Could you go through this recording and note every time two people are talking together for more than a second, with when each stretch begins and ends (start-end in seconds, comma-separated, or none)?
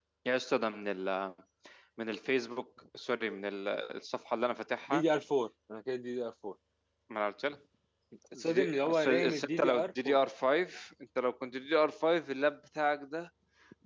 8.3-10.2